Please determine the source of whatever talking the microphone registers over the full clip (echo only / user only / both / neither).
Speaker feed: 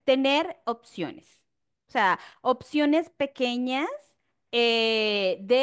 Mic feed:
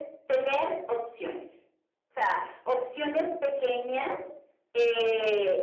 echo only